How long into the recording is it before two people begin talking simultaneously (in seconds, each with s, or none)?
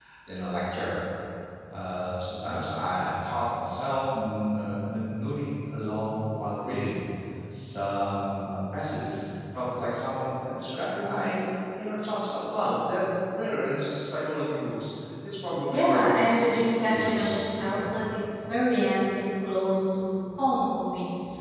15.7 s